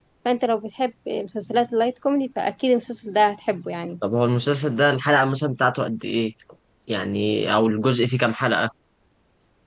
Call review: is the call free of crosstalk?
Yes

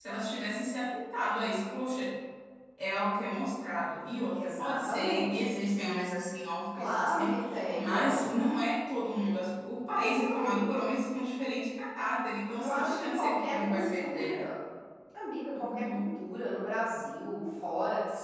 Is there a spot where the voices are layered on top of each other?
Yes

